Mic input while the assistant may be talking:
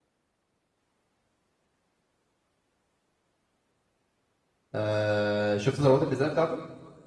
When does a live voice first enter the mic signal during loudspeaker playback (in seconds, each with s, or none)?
4.8 s